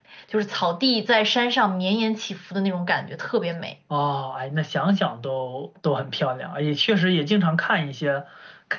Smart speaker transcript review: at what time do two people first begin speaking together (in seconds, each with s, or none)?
none